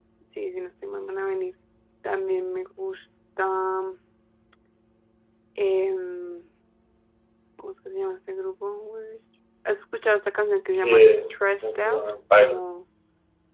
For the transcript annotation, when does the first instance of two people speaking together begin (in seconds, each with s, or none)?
10.7 s